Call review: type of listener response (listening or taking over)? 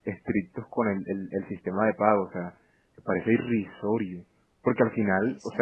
listening